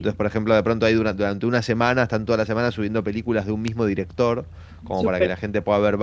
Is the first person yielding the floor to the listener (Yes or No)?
No